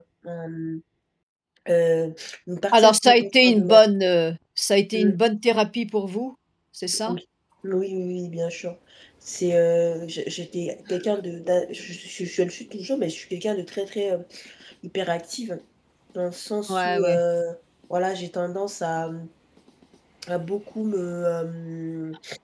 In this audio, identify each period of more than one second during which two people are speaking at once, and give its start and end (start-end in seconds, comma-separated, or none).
2.7-3.9